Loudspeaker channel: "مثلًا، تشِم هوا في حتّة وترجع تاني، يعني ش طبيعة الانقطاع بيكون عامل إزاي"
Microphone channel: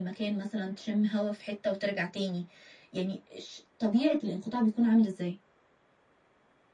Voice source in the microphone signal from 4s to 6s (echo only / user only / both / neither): echo only